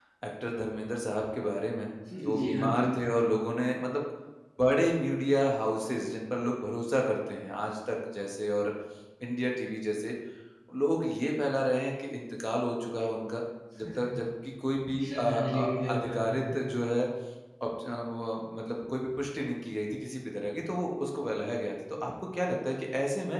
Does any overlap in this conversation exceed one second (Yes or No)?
Yes